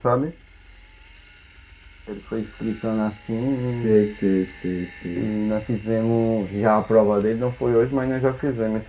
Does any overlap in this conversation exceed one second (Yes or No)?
No